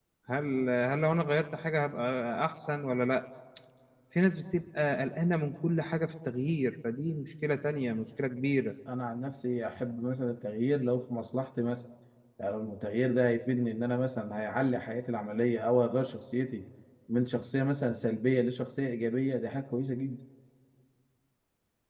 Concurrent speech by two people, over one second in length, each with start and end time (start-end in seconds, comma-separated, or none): none